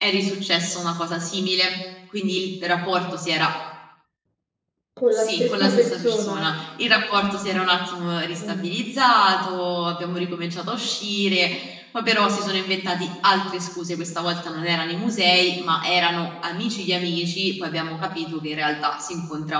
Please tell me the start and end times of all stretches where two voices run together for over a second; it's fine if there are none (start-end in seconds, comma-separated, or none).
5.1-6.5